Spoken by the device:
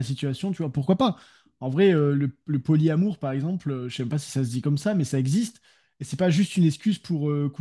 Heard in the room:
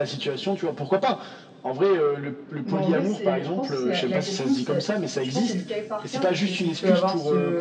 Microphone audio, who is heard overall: both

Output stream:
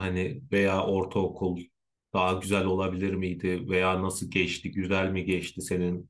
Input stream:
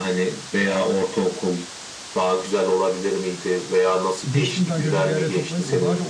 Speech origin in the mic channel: both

